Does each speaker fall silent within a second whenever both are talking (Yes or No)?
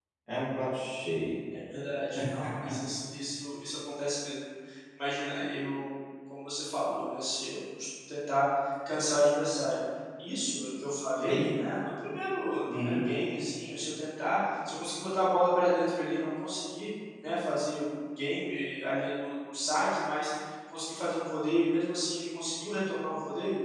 Yes